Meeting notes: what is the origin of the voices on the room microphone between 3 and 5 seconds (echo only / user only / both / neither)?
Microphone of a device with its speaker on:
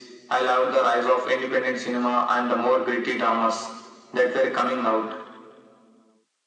echo only